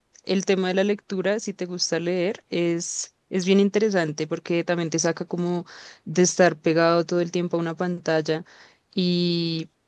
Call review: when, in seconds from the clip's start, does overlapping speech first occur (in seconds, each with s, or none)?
none